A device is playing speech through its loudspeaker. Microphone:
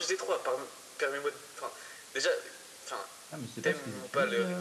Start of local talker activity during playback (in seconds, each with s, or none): 3.3 s